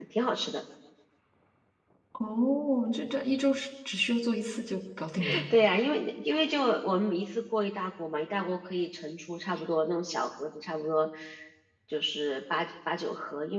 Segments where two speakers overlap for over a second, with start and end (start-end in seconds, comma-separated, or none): none